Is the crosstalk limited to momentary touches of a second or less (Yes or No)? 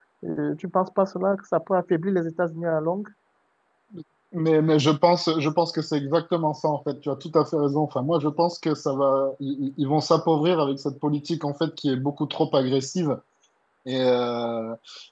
Yes